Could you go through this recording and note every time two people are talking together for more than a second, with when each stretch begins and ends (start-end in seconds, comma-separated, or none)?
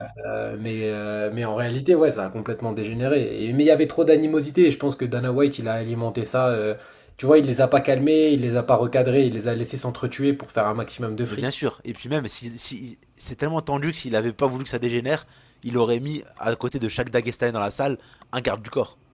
none